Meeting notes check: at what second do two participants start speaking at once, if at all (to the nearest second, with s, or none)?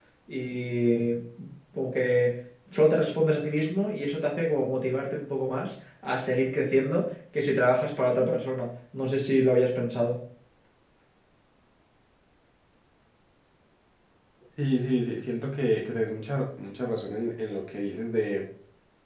none